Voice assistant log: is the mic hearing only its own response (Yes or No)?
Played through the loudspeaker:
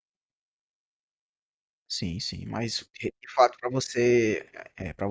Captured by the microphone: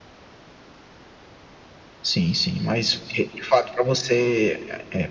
Yes